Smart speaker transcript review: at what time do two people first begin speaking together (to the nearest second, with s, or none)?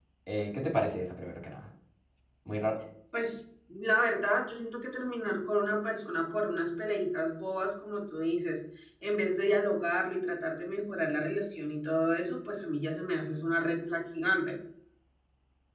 none